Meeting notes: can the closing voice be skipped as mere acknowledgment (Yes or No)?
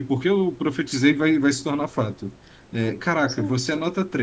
Yes